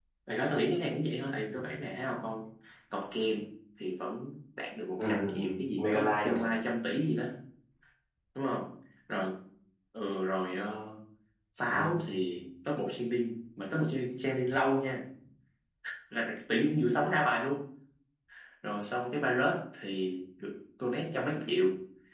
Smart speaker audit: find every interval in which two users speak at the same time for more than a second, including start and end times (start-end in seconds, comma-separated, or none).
5.0-6.5